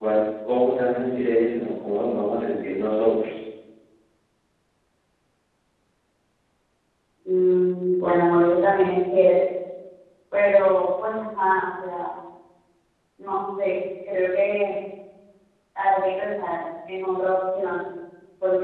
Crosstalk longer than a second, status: none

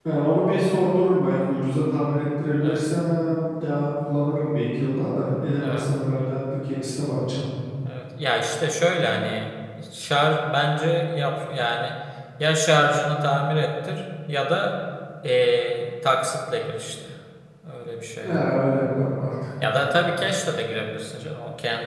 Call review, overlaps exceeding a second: none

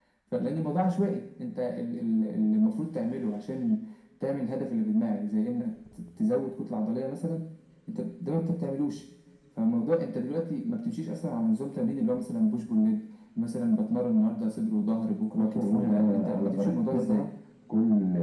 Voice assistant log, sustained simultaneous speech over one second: present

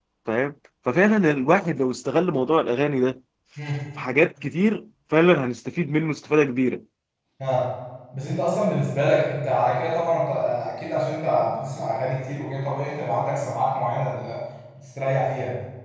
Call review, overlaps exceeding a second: none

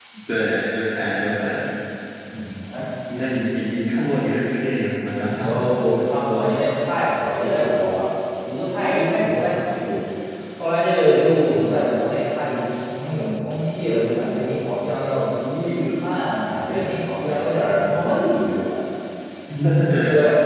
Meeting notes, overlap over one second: none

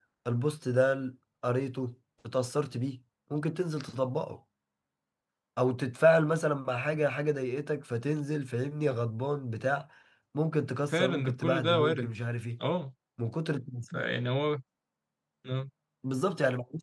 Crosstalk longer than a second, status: present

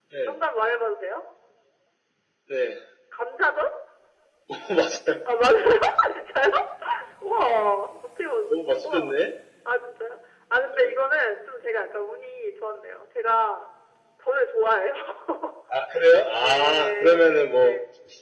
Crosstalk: present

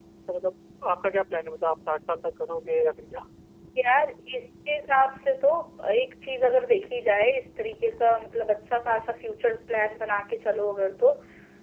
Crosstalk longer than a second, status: none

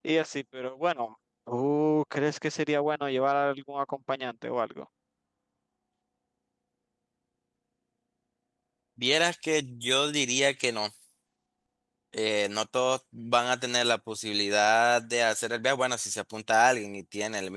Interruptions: none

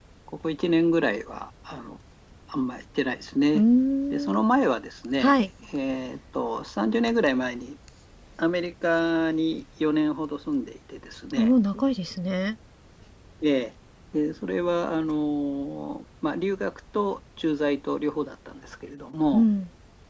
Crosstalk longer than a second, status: none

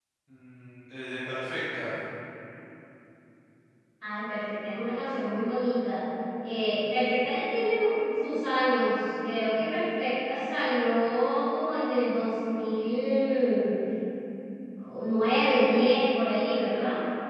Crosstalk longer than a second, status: none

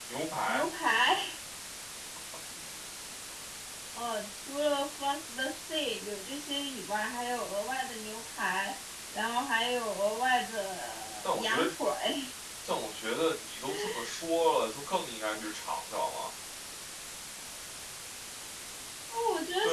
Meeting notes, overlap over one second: none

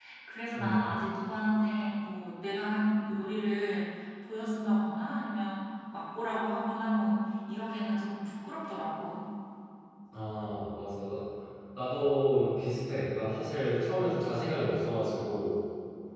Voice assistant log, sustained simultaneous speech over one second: none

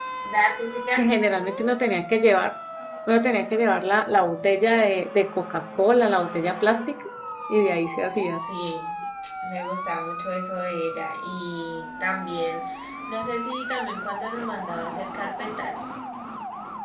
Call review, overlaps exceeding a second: none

